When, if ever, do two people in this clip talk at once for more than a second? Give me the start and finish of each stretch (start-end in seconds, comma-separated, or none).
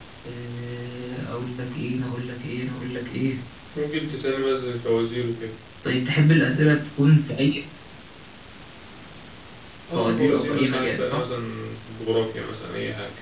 9.9-11.2